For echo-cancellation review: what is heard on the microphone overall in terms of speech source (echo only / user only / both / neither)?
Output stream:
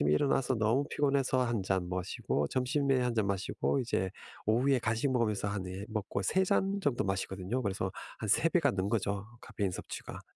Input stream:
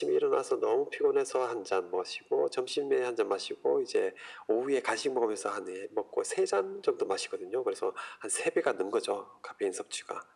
echo only